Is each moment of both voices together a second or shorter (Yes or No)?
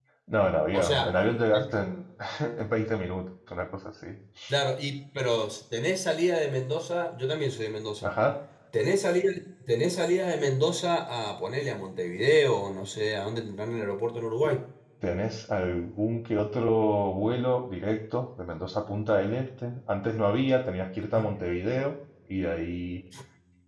Yes